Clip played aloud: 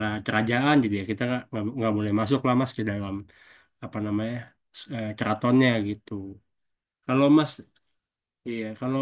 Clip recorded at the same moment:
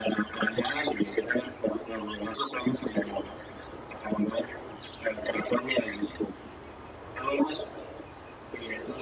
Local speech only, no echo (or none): none